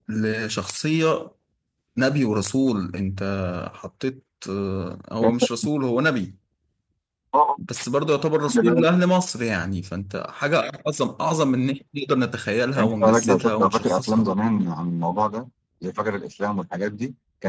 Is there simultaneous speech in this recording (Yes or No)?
Yes